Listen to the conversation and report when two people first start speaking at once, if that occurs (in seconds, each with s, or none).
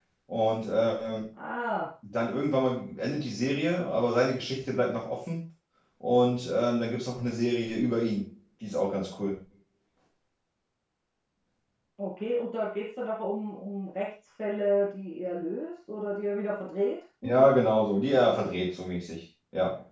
none